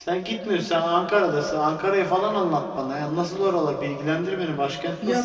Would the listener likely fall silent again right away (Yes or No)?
No